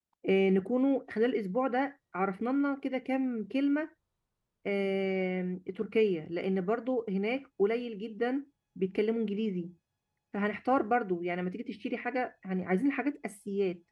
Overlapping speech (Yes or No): No